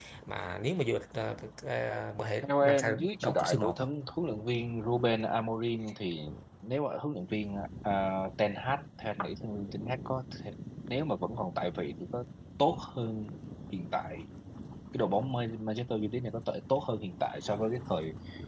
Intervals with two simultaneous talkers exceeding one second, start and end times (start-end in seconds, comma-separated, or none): 2.4-3.8